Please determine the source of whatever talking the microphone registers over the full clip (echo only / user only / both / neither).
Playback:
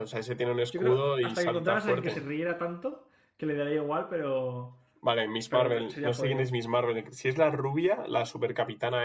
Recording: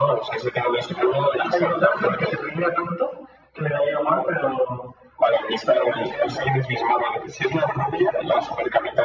echo only